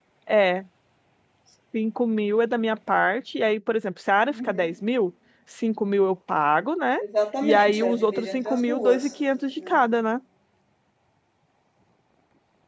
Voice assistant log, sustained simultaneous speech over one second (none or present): present